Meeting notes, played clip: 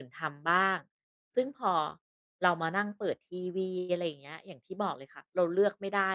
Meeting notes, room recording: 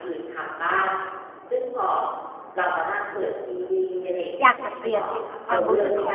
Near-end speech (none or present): present